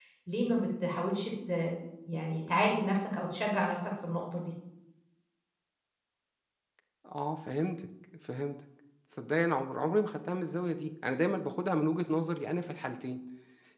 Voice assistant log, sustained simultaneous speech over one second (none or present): none